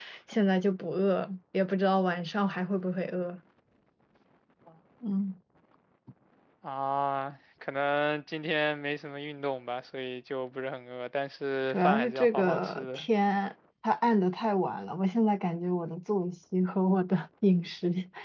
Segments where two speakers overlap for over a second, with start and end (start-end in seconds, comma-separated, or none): 11.7-13.0